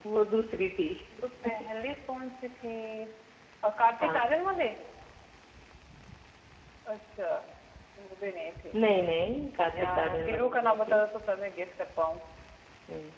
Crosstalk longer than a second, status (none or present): present